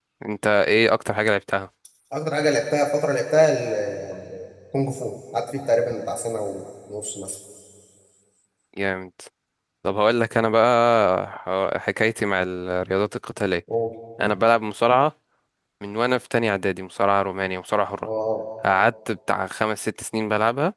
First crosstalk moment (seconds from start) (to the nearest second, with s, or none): none